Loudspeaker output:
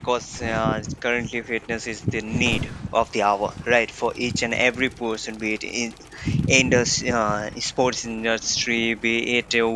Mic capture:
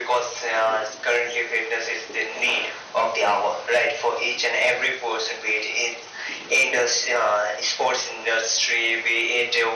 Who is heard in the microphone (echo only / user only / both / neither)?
echo only